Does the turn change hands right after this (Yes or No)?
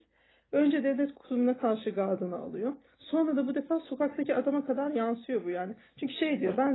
No